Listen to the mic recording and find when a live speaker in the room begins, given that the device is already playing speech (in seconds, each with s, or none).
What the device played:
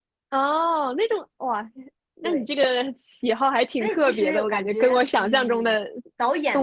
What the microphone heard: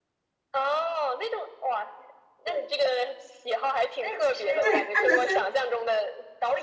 4.6 s